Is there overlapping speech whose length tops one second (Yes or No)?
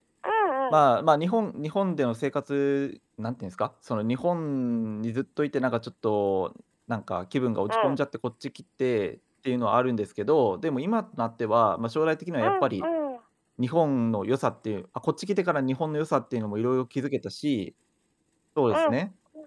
No